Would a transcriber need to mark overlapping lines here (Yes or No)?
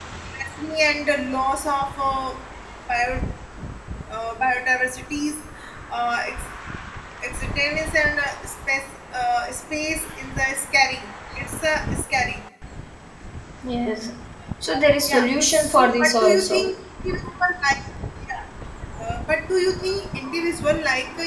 Yes